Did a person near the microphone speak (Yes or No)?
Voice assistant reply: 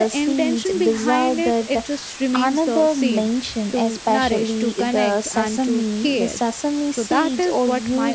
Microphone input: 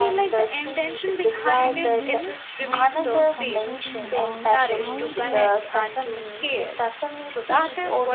Yes